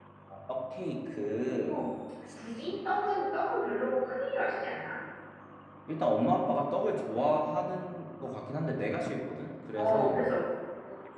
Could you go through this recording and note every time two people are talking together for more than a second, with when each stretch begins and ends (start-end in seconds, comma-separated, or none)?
none